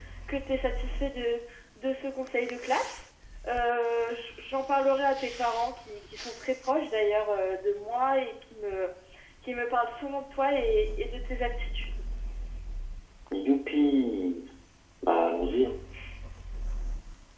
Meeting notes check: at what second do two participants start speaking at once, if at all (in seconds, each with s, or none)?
none